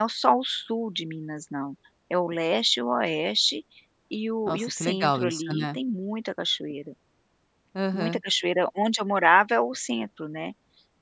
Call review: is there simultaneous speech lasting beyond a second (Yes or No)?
Yes